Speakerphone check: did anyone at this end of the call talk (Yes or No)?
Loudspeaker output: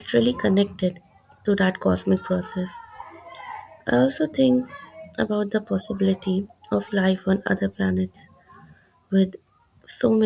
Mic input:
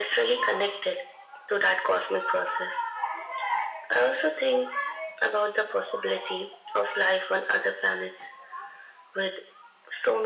No